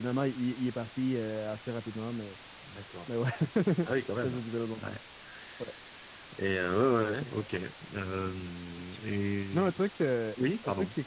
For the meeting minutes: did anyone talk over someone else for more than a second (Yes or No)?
No